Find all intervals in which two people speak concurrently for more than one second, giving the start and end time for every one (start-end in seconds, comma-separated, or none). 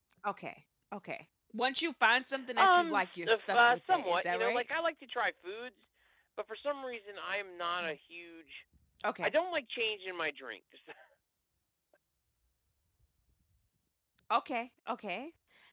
2.6-4.6